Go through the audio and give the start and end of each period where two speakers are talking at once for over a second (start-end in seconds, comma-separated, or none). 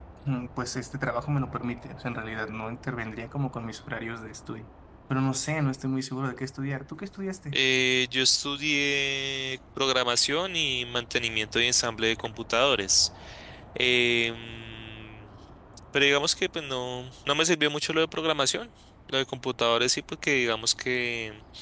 none